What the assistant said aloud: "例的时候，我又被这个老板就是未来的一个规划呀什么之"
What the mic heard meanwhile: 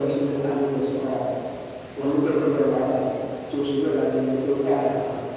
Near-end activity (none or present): none